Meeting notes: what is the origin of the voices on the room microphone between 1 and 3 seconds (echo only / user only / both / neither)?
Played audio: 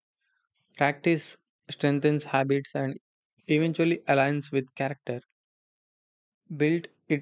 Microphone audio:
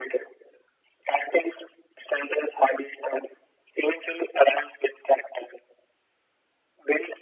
echo only